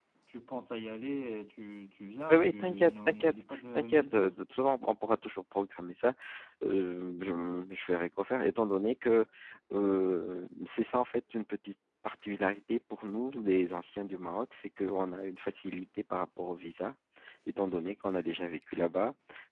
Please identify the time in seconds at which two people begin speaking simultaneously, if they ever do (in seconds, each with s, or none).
2.3 s